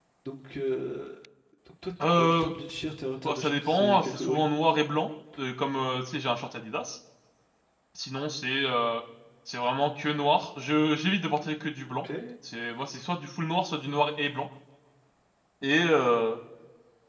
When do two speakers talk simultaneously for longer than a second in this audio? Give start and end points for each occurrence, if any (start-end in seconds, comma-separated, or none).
3.2-4.4